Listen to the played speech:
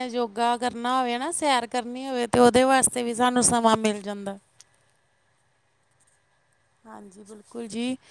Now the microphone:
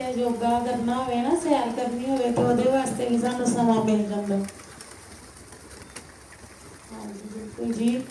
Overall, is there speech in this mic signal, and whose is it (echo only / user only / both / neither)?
echo only